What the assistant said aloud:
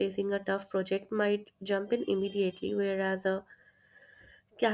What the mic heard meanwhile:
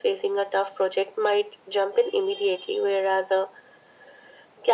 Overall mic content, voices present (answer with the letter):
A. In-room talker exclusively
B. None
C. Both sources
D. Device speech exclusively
D